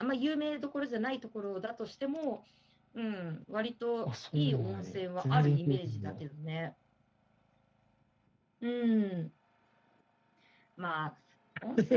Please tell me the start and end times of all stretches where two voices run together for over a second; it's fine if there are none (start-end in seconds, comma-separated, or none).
4.0-6.2